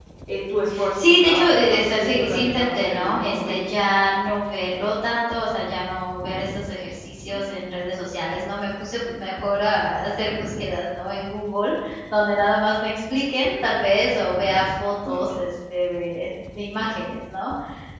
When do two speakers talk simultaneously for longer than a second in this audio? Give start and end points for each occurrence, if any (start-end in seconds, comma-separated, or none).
0.9-3.6